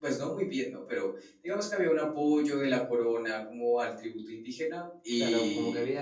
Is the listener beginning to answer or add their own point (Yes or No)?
Yes